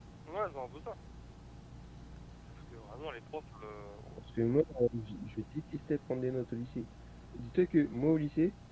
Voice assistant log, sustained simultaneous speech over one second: none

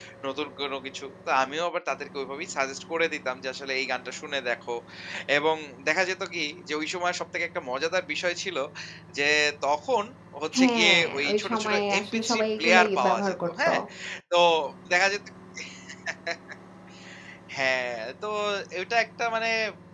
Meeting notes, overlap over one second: present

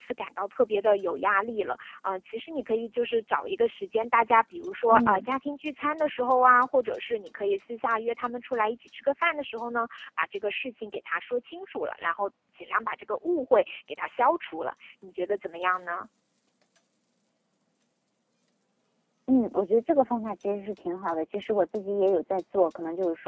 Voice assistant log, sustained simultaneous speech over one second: none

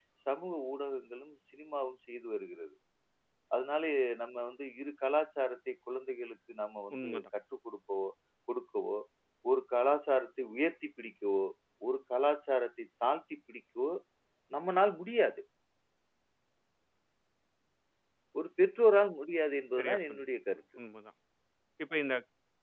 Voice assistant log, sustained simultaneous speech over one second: none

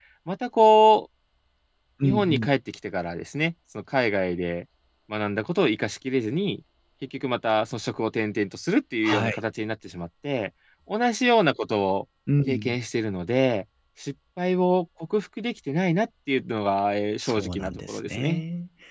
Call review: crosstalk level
present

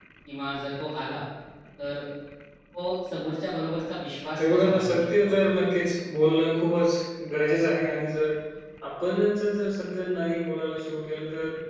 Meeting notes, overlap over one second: present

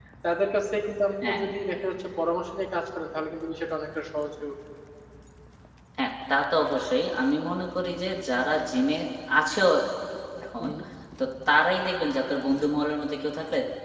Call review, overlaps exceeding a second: none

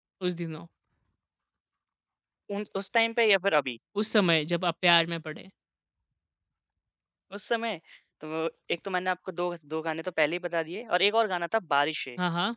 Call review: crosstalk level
none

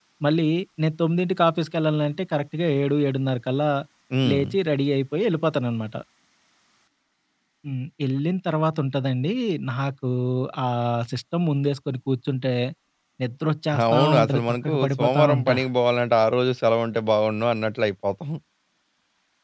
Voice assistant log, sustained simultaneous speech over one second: present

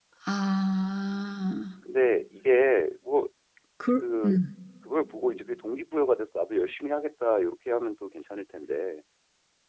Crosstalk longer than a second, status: none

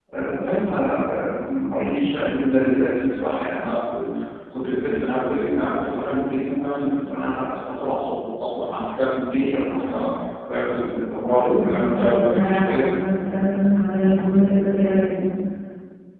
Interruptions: present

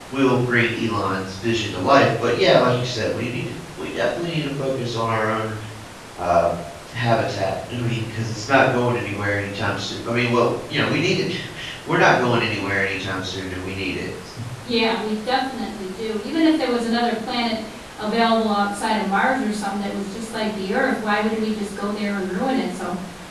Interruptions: none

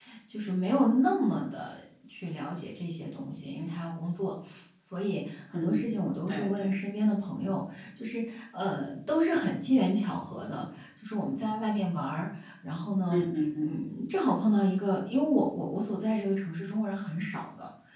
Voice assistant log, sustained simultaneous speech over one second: present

